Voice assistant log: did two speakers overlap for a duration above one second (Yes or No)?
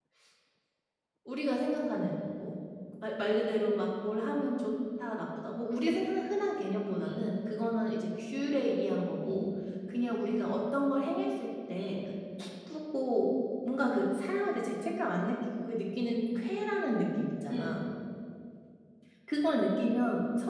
No